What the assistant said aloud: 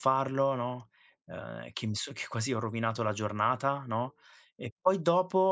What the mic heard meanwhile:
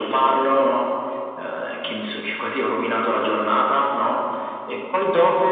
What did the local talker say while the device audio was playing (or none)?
none